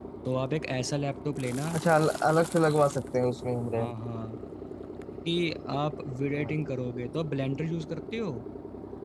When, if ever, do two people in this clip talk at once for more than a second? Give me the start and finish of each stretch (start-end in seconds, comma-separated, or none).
none